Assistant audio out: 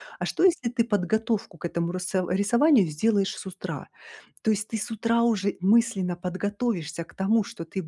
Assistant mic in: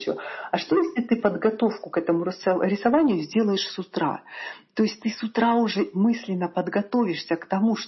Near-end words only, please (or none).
none